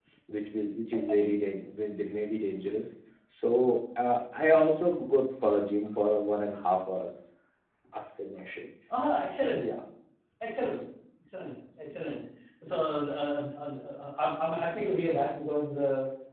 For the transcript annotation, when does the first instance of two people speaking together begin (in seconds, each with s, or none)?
none